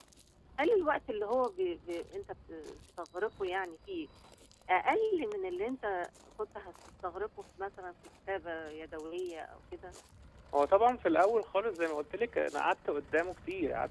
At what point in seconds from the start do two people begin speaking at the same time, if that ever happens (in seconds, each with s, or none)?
none